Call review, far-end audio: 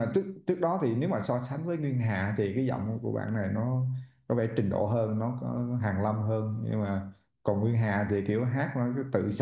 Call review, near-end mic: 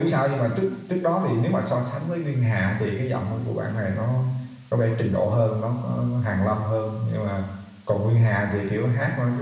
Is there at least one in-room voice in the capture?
No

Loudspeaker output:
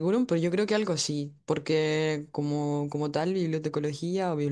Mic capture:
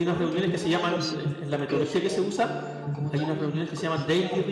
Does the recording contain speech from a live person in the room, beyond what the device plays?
Yes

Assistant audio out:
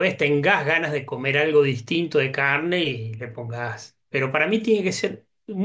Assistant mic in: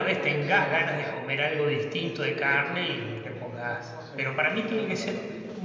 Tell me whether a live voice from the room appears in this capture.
Yes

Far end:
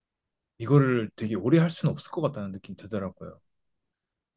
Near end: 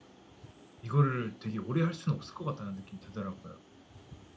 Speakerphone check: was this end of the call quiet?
Yes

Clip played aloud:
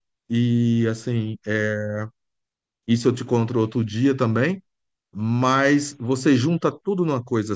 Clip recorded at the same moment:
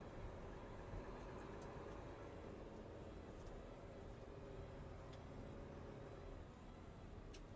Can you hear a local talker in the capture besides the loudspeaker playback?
No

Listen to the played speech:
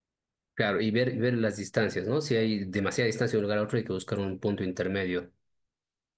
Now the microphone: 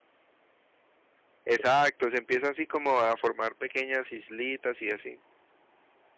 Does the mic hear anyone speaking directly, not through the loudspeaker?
Yes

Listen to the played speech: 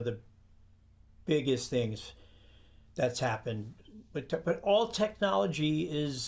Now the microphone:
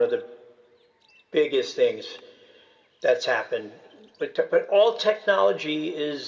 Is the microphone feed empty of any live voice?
Yes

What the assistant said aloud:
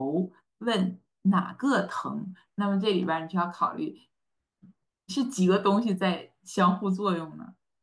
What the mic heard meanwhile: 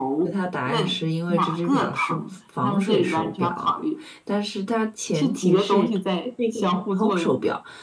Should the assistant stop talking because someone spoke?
Yes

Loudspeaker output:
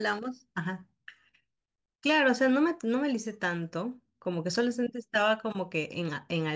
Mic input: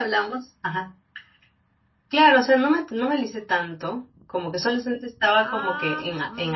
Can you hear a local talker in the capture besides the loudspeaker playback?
Yes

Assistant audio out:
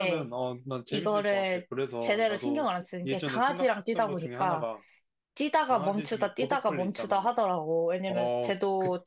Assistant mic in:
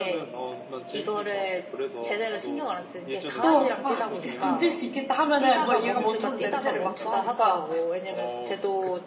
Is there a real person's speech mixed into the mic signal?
Yes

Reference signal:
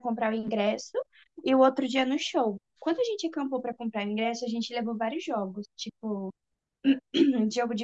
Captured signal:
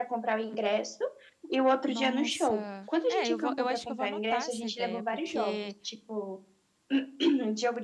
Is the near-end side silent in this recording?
No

